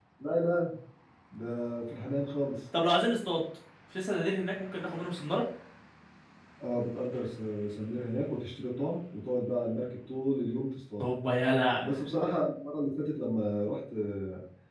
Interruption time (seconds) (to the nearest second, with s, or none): none